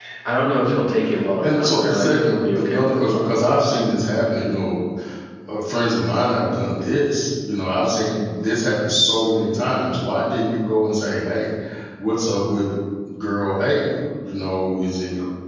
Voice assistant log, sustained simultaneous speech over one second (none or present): present